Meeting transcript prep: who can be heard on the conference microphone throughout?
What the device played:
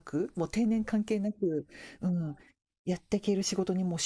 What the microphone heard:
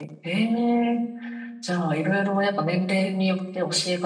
user only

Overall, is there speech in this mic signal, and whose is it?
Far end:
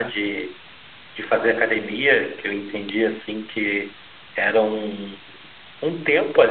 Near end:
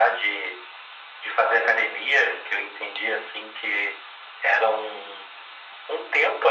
echo only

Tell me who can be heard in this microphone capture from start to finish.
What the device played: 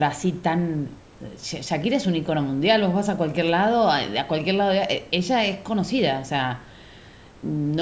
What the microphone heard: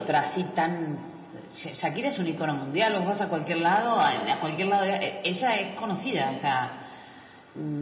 echo only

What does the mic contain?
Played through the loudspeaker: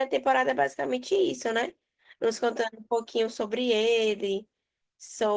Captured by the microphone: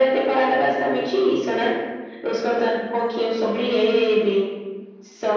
echo only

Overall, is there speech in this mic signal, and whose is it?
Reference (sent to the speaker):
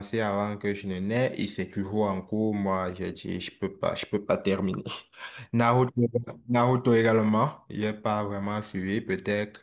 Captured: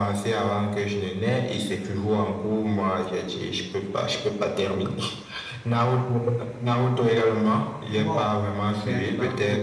both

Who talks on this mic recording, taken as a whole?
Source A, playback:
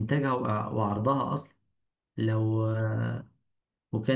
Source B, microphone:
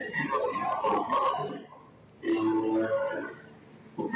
echo only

